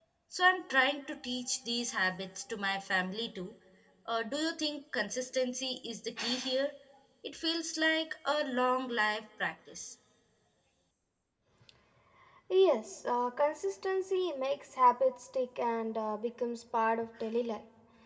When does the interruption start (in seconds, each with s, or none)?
none